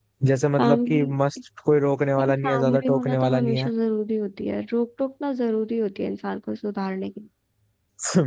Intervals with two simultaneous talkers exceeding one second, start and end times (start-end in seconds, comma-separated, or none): 2.2-3.7